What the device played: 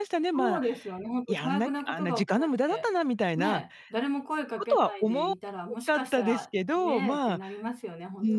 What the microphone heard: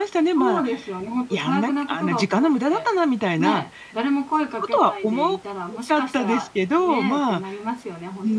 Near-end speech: none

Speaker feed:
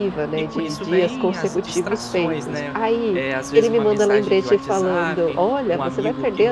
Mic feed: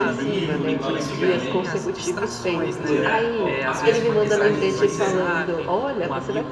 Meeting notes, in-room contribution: present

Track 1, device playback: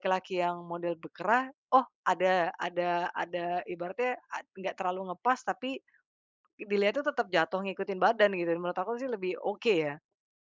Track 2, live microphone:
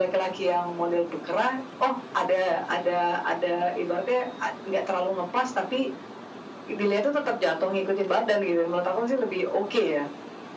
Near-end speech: none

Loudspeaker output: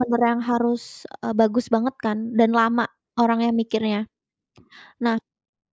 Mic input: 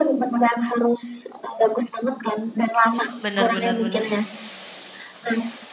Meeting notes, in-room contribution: present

